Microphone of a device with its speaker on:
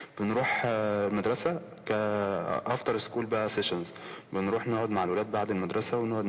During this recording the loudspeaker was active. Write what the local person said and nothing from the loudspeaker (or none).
none